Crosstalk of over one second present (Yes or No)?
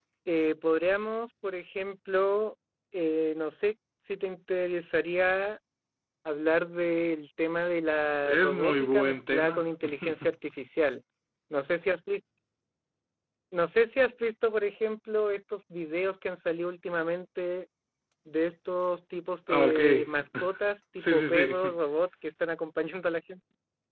Yes